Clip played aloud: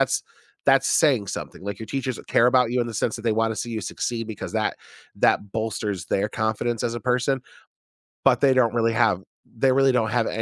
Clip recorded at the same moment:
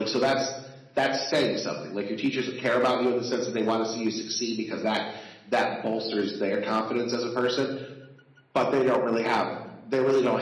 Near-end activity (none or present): none